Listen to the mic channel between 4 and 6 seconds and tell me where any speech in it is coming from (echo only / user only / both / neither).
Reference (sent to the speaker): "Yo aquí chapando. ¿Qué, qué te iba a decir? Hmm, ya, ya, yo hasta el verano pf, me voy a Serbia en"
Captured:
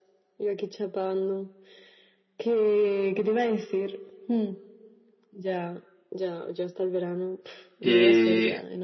echo only